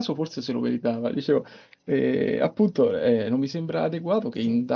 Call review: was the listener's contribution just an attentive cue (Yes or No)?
Yes